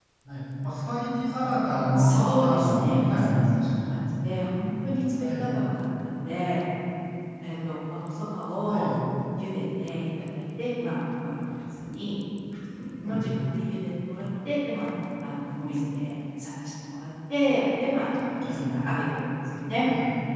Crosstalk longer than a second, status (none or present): present